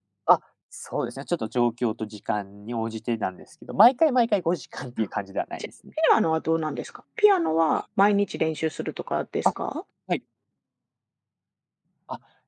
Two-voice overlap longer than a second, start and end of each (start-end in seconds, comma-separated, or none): none